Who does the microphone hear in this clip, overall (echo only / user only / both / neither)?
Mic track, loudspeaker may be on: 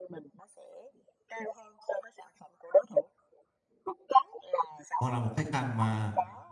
both